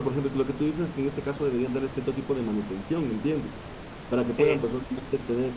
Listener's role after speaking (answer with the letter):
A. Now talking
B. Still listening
B